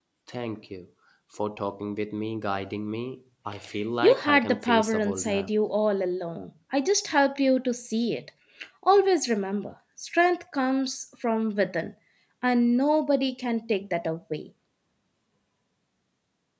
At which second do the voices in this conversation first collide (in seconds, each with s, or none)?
4.0 s